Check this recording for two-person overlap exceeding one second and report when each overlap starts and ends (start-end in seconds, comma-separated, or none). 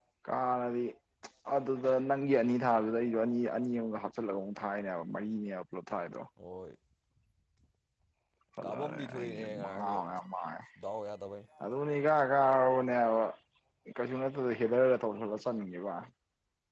8.6-10.0